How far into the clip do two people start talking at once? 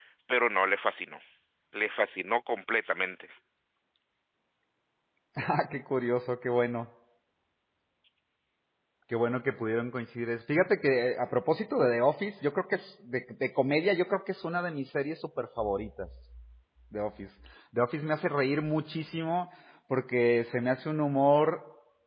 none

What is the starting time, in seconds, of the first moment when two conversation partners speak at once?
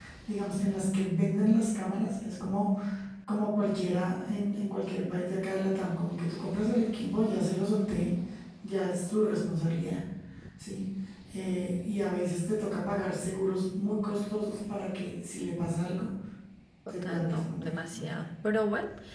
17 s

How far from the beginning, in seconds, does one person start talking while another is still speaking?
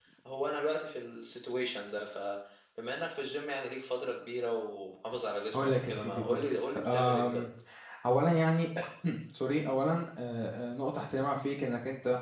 6 s

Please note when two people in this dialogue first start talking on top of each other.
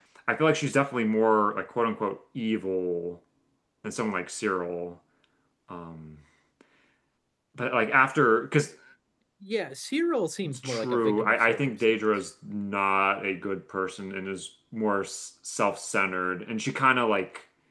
10 s

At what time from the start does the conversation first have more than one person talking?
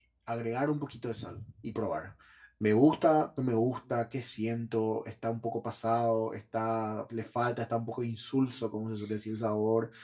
none

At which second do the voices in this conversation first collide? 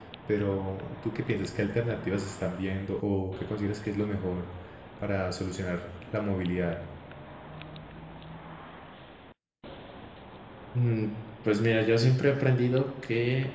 none

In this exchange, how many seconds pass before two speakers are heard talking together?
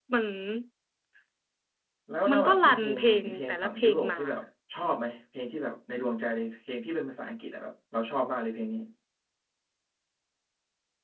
2 s

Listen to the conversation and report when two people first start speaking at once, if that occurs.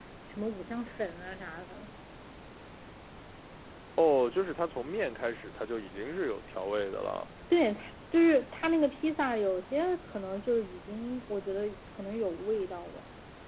none

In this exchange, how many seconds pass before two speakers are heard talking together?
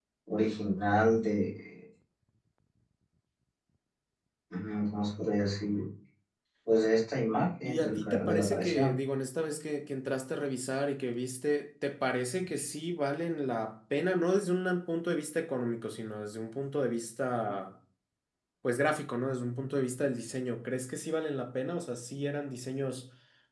8 s

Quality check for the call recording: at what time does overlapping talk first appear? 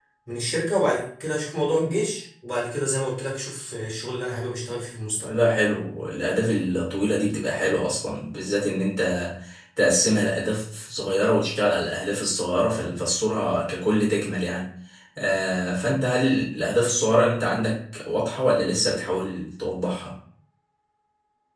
none

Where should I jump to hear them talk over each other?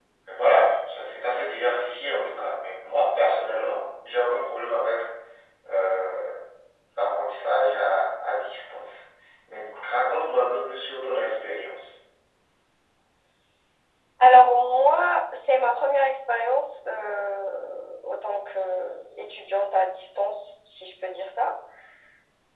none

